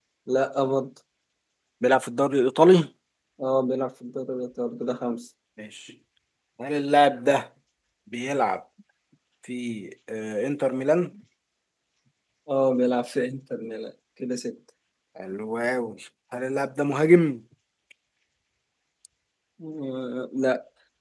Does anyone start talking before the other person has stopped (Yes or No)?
No